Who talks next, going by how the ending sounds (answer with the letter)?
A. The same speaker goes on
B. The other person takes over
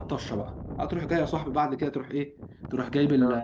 A